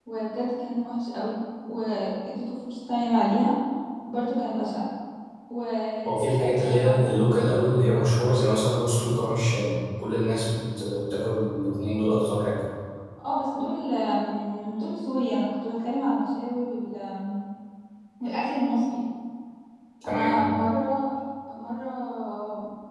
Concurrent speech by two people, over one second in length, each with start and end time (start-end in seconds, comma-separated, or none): 6.0-7.3